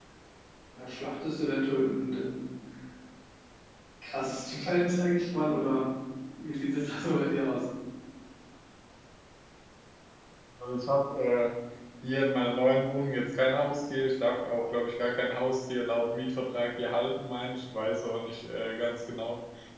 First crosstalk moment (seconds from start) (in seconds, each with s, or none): none